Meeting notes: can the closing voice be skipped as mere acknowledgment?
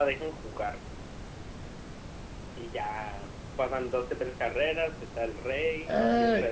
No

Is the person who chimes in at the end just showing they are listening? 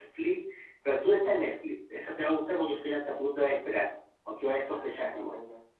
No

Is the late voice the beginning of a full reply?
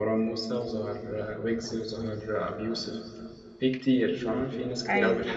No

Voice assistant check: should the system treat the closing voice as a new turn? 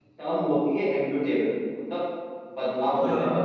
No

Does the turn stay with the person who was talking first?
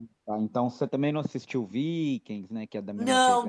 No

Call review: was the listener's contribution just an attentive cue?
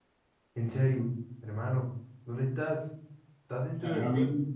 No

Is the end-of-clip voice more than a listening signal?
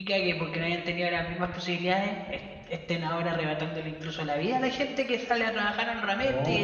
No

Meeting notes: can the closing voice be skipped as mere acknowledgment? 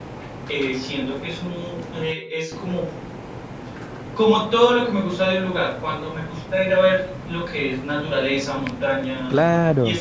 Yes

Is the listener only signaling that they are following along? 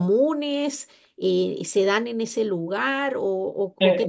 No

